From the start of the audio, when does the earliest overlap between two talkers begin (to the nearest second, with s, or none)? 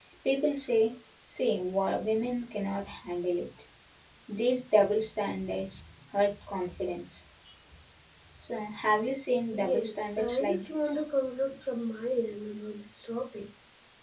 10 s